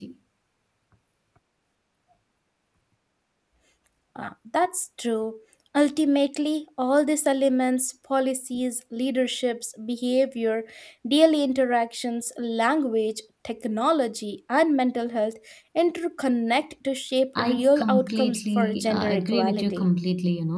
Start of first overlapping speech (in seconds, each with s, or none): 17.4 s